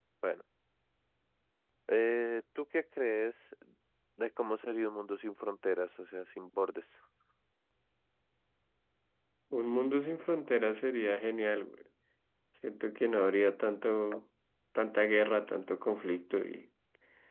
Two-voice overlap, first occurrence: none

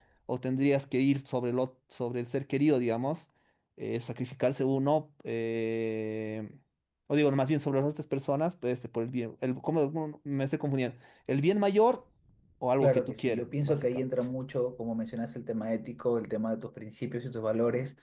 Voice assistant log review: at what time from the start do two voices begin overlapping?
12.8 s

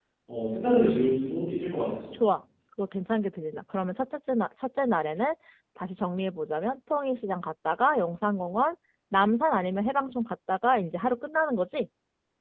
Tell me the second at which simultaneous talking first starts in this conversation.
none

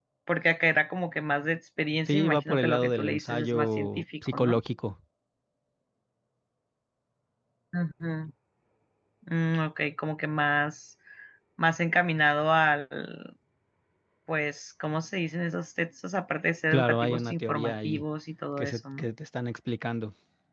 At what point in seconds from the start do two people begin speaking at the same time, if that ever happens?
2.1 s

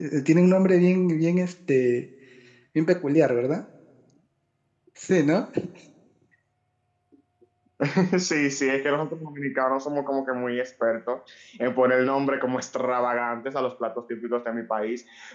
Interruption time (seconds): none

